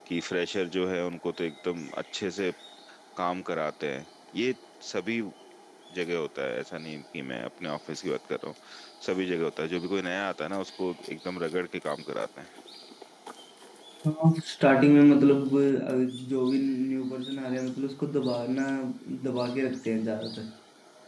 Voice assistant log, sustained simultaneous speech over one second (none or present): none